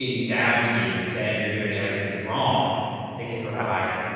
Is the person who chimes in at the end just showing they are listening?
Yes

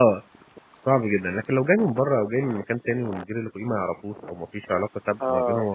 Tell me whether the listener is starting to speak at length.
No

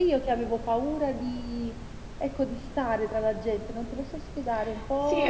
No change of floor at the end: No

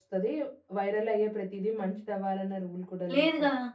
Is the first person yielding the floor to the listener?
Yes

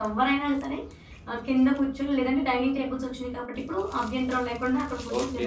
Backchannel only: No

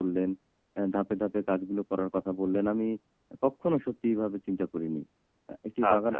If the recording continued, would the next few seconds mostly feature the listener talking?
No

